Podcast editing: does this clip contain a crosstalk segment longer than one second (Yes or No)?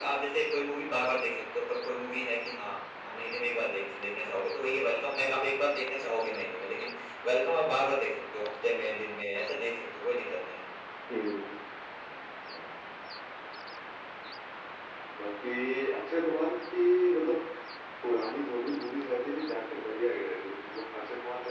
No